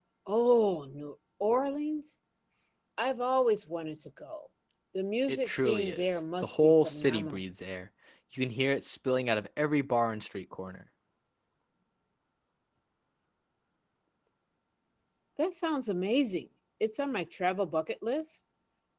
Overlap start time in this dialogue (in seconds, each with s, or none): 5.3 s